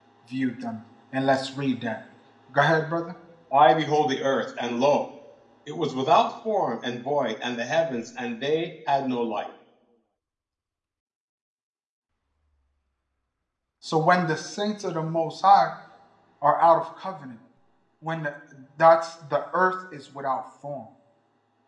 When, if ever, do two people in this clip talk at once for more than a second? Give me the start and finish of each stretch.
none

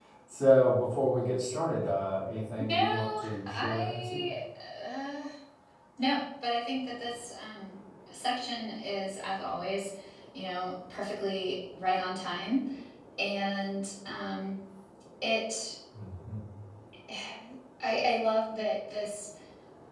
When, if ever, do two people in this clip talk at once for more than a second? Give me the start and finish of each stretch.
2.7-4.2

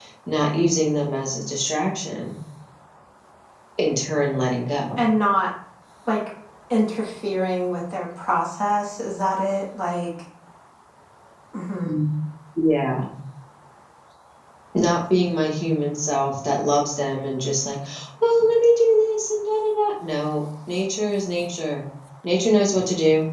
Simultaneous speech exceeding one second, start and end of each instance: none

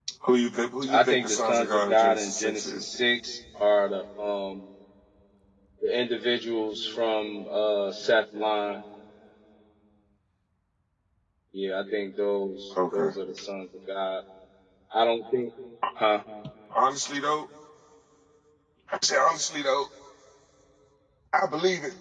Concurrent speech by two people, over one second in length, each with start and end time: 0.9-3.0

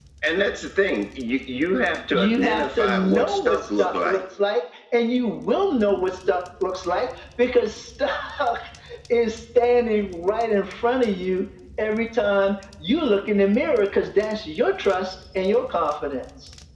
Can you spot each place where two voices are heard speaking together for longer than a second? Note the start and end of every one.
2.1-4.2

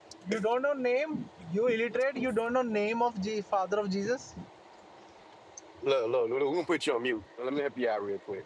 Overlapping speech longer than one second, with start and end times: none

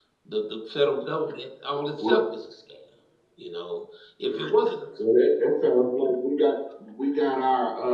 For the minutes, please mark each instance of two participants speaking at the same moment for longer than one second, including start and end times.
none

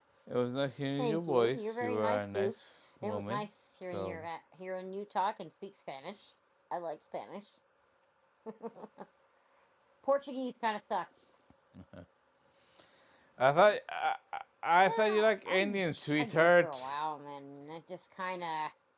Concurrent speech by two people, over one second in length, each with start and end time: 1.0-2.5, 14.9-16.8

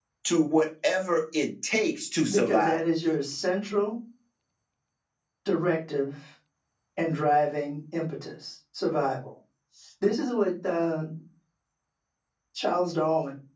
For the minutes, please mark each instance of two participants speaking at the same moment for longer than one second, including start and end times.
none

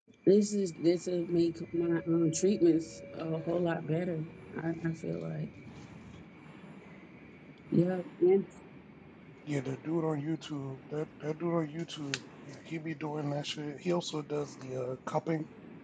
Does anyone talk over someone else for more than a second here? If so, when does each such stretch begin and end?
none

